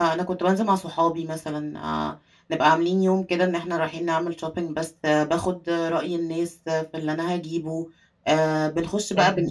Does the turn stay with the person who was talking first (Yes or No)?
Yes